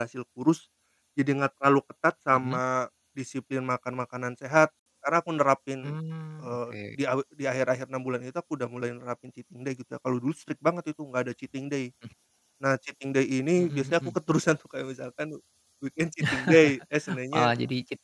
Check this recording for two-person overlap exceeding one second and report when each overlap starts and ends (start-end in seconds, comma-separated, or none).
none